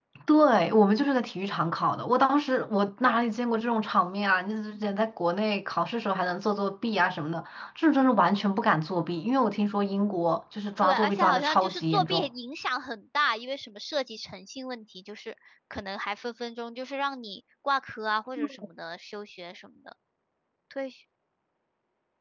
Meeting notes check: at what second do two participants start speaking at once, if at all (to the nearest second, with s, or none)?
11 s